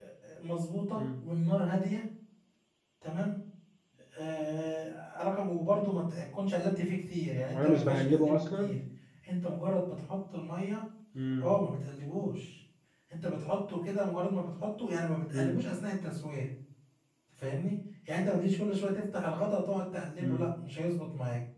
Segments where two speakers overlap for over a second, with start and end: 7.5-8.7

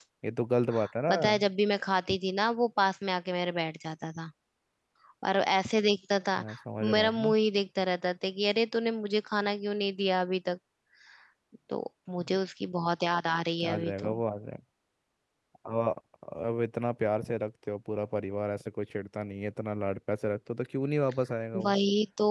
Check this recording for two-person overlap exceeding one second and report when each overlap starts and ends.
none

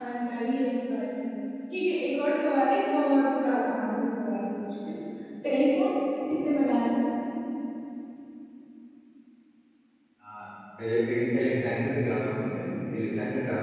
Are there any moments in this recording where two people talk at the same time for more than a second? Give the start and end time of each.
none

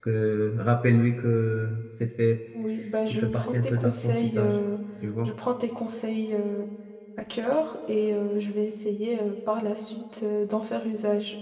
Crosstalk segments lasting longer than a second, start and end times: 3.1-4.6

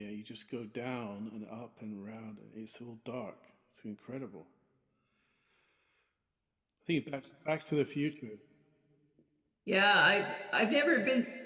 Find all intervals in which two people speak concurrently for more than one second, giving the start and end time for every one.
none

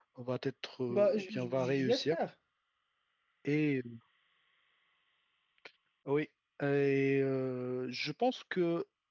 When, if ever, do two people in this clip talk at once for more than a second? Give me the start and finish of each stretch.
0.9-2.2

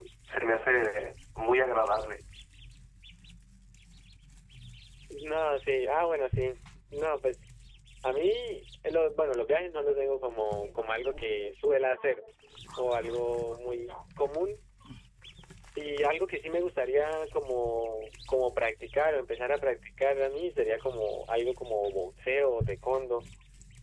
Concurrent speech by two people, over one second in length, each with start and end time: none

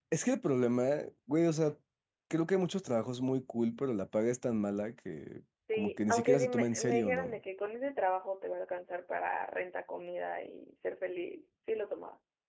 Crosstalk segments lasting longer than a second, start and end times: 5.7-7.4

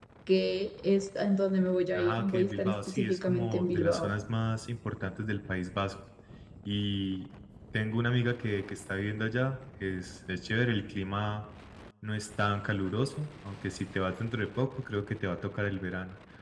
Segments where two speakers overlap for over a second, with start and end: 2.0-4.1

